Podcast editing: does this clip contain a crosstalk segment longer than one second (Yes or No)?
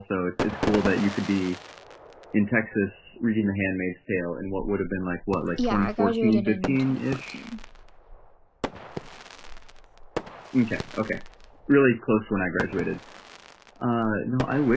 Yes